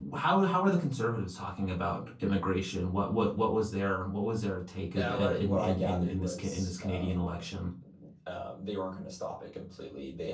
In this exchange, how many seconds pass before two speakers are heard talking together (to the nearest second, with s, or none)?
5 s